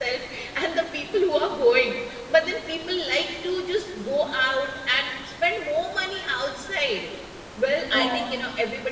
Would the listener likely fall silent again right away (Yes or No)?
Yes